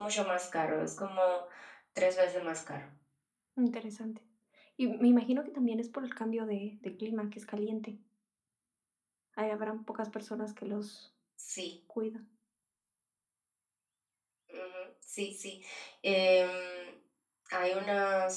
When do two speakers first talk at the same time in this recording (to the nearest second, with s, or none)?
none